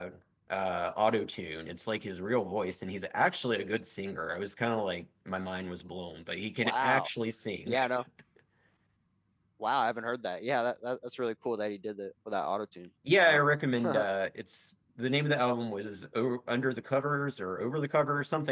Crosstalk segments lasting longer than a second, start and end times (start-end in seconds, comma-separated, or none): none